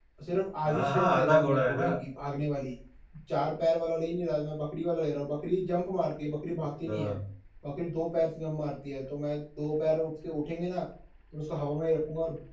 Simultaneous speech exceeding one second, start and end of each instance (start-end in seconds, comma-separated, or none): 0.7-1.9